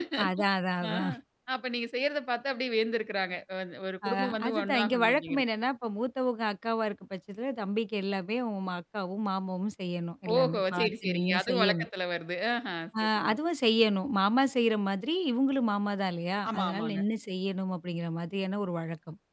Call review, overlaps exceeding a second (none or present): present